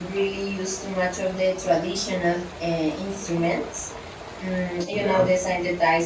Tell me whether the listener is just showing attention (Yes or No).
Yes